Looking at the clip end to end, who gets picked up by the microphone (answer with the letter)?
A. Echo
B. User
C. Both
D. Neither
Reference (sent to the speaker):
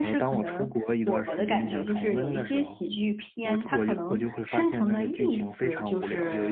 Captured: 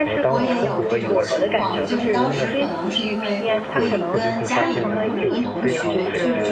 C